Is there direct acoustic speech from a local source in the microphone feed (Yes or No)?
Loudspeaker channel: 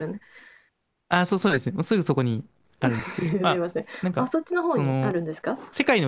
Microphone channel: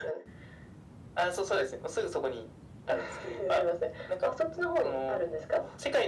No